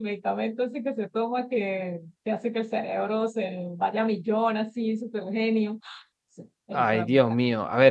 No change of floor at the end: No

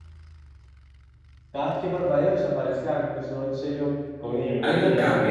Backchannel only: No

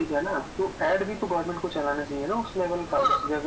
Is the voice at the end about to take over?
Yes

